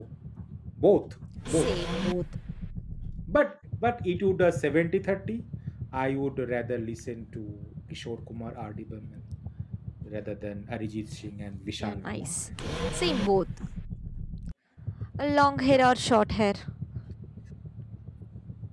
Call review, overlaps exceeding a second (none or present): none